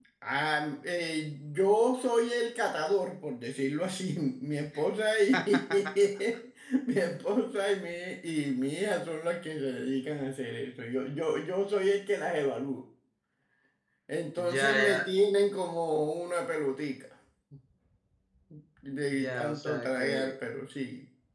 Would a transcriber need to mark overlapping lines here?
Yes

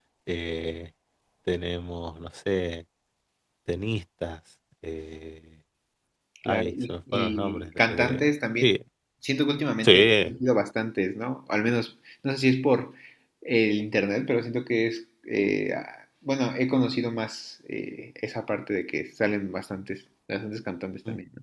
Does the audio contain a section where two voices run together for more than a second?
Yes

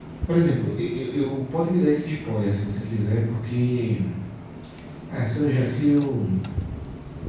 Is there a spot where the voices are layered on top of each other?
No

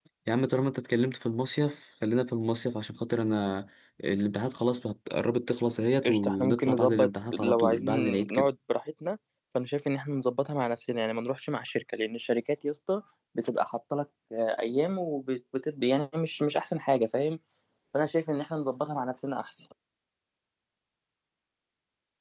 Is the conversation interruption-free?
No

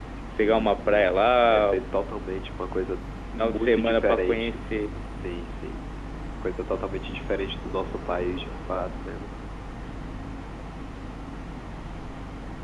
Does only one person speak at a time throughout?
No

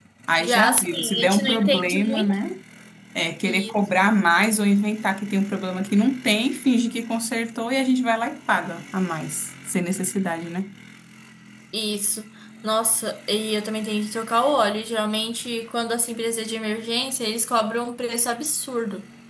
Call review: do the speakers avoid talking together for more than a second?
No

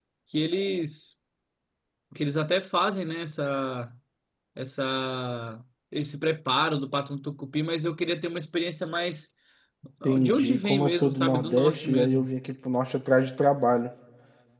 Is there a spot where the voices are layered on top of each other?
Yes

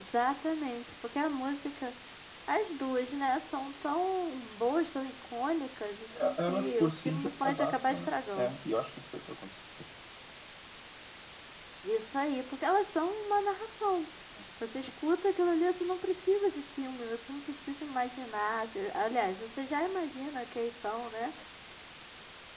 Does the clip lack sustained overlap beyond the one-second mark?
No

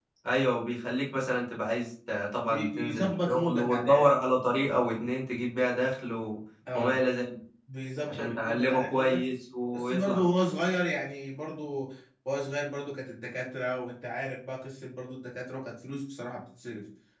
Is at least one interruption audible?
Yes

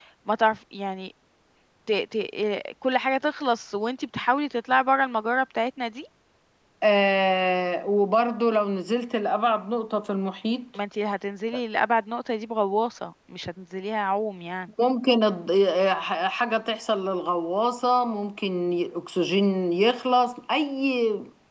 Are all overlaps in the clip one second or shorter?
Yes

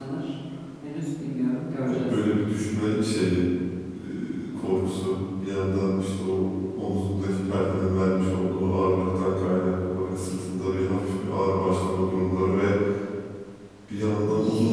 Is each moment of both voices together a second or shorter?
Yes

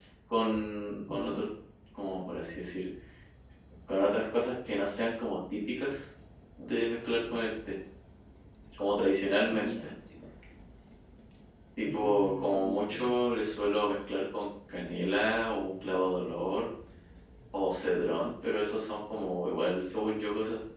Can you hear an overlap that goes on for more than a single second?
Yes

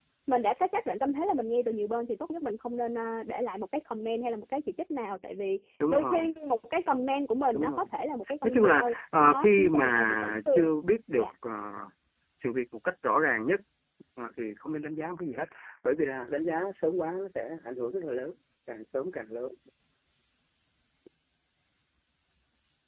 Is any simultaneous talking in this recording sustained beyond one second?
Yes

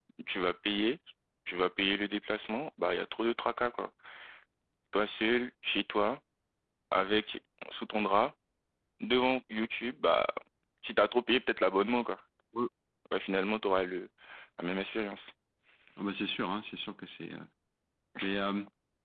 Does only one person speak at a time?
Yes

